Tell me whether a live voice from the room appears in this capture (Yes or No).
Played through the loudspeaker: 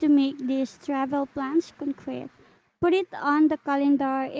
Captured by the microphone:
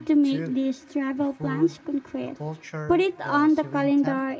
Yes